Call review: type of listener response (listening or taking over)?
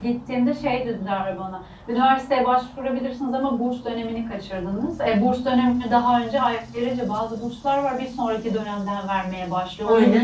listening